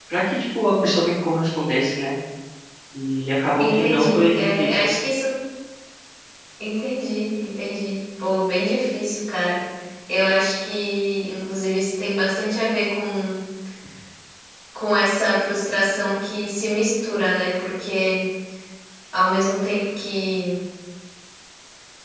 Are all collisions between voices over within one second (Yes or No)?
No